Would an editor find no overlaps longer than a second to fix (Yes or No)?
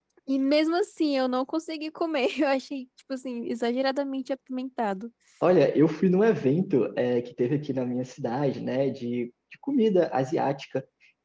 Yes